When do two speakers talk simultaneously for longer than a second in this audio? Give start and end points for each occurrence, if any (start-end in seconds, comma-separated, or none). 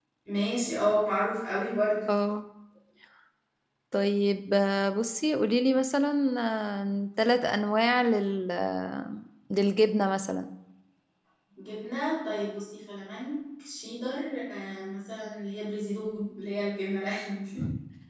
none